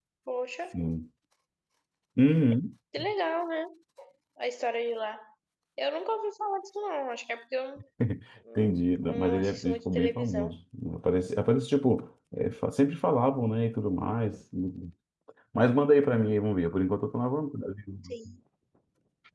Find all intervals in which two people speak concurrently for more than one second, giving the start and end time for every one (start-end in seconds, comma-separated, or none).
8.6-10.5